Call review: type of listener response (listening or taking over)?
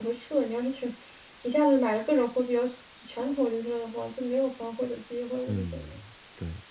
taking over